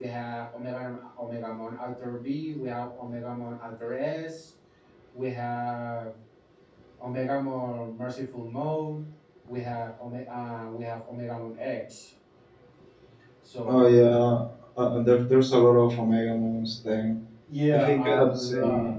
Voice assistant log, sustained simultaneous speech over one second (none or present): present